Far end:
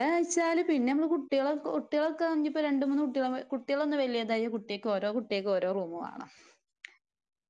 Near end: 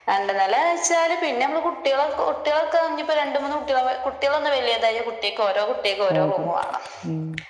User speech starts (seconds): 6.1 s

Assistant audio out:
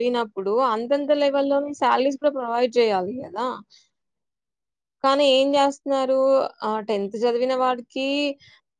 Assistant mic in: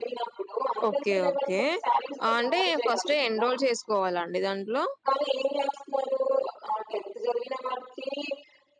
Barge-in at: 0.9 s

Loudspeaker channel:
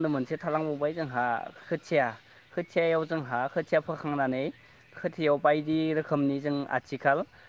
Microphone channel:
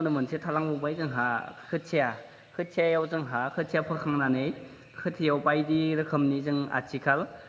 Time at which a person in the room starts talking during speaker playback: none

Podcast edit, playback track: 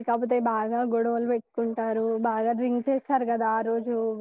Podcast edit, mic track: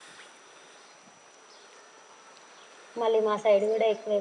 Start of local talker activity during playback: 3.0 s

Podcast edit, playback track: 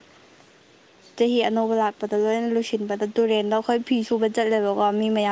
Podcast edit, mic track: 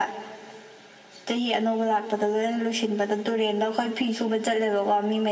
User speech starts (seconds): none

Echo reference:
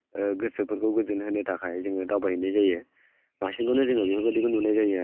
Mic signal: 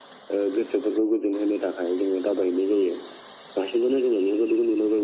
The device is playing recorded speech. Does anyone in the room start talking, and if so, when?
none

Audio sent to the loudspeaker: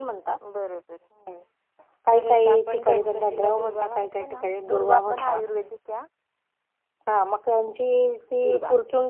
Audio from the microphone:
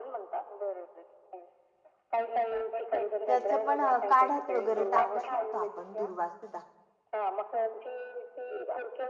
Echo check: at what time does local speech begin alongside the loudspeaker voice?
3.3 s

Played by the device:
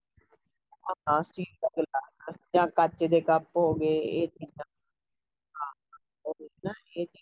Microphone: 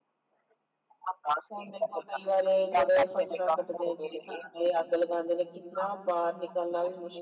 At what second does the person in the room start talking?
1.5 s

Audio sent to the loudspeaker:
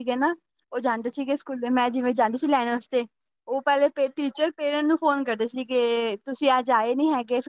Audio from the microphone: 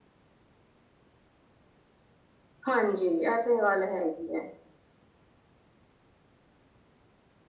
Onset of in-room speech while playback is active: 2.7 s

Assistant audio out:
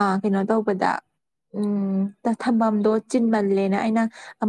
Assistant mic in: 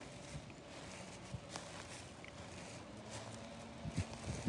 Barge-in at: none

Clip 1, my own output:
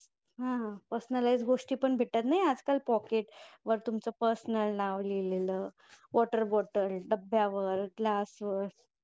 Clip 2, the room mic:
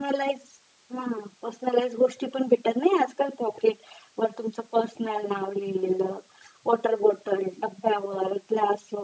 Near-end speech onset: none

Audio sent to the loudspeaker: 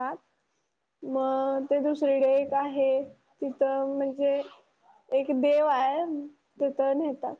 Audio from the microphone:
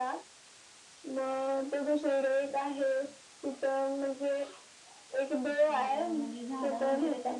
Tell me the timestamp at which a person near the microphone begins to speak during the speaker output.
5.5 s

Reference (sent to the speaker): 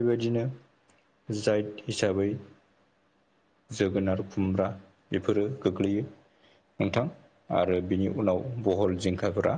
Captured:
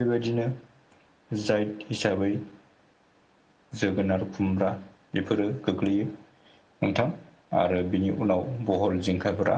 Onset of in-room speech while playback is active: none

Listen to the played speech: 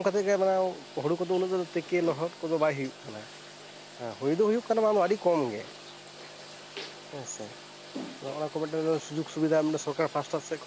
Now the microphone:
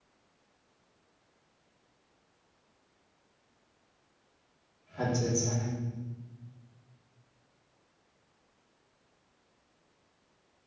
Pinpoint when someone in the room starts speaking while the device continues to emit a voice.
5.0 s

